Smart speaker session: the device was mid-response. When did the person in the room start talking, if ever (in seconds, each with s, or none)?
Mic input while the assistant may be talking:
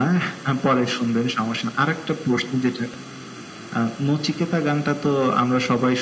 none